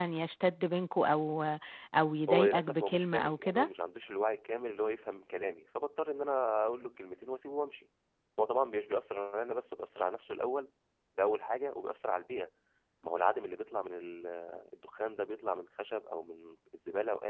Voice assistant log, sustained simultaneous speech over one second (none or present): present